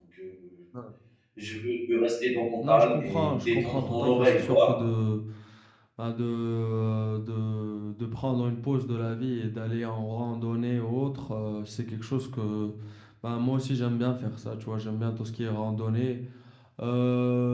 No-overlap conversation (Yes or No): No